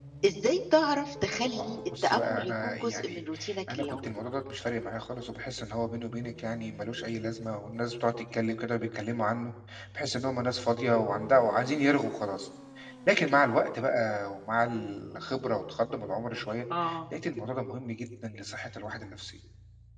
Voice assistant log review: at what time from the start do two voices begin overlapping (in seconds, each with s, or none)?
1.4 s